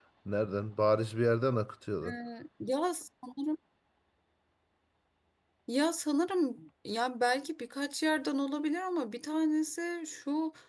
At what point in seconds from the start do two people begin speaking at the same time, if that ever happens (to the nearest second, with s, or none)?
none